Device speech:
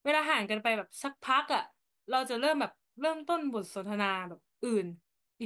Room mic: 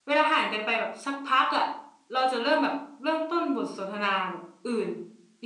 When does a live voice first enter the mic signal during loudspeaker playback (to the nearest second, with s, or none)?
none